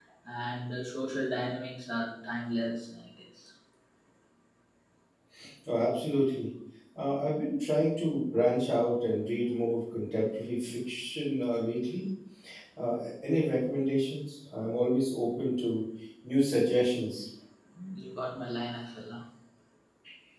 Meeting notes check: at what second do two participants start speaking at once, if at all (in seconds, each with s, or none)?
none